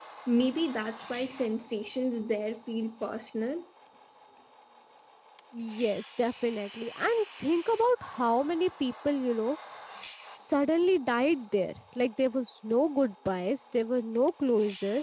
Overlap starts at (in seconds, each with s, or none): none